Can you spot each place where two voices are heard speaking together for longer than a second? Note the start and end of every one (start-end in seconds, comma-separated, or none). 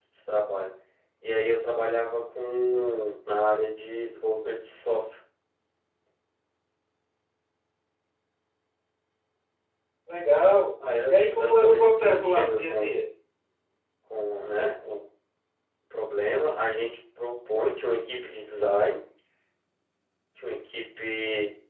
11.0-12.9